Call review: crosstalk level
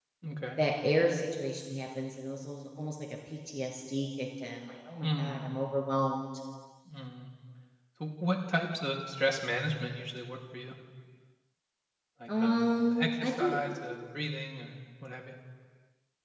present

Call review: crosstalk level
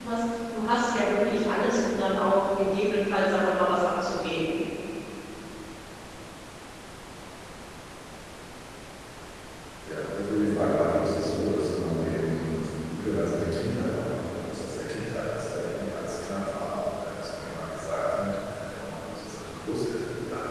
none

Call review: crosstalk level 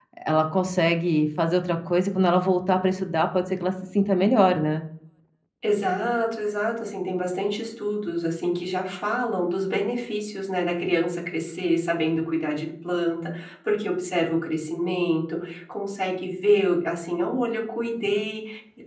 none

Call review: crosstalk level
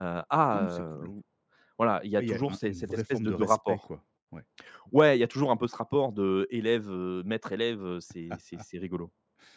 present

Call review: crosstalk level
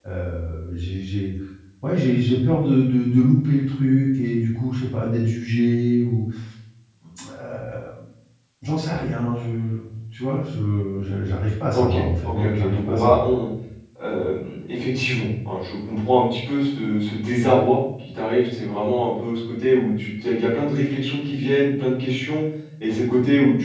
present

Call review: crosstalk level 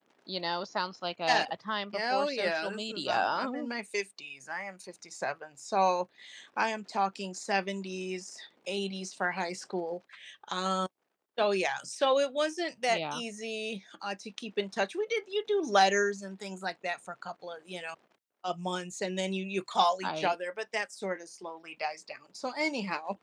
present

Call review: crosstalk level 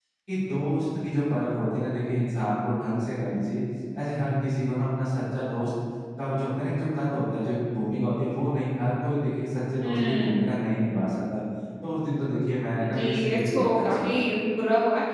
present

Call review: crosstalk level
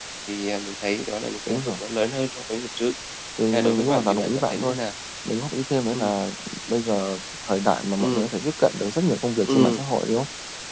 present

